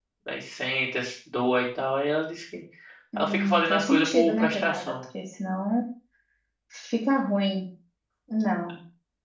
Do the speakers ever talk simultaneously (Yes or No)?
Yes